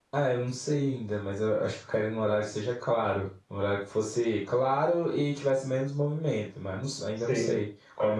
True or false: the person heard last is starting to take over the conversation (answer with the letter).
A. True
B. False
A